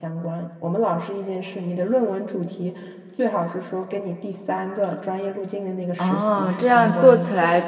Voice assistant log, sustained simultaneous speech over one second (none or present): present